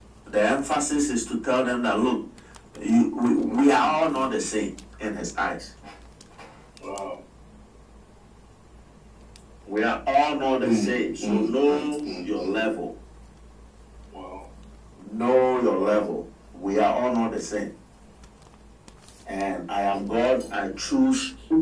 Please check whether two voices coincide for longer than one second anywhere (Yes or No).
Yes